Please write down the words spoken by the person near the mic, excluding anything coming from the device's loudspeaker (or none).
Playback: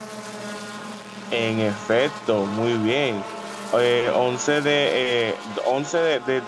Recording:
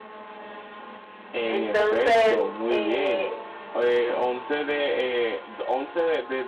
Entonces, eh,